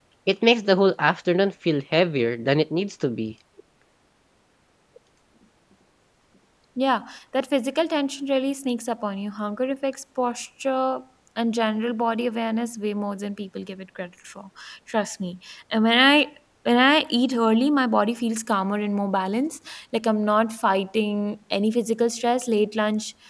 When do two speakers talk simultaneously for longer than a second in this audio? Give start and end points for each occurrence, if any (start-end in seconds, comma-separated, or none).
none